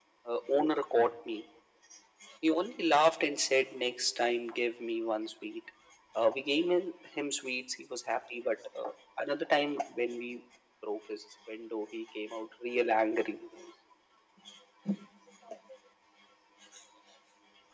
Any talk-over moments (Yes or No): No